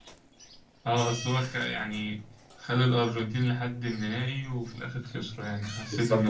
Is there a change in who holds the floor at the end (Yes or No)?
Yes